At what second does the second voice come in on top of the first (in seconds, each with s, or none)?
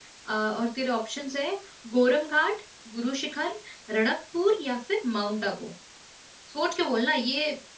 none